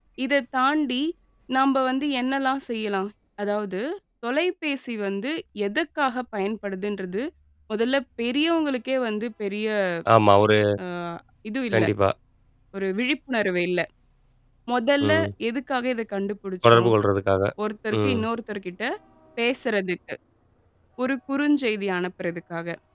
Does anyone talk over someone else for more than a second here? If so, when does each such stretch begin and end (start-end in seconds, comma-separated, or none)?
none